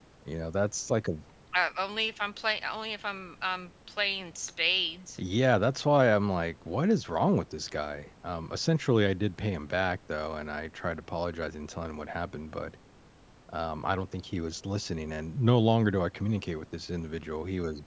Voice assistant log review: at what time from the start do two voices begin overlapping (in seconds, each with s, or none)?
none